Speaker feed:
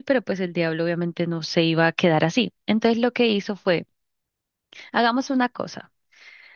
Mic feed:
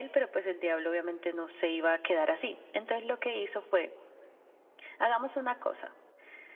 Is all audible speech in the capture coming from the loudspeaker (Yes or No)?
Yes